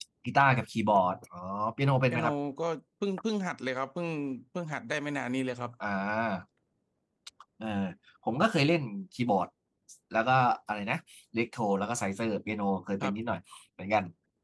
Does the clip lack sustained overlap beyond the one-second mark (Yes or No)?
Yes